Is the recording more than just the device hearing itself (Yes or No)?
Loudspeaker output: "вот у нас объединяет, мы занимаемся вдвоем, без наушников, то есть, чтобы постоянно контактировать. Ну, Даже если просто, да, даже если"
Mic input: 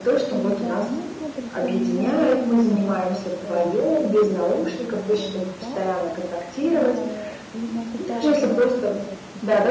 Yes